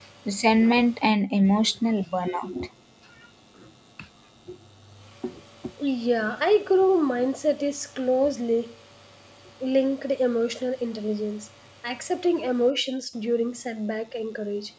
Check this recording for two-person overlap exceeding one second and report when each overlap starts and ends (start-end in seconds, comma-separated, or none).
none